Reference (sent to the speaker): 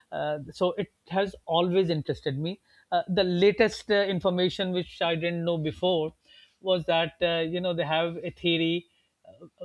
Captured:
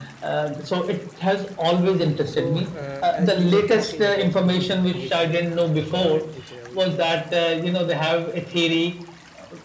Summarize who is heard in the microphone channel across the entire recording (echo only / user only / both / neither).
both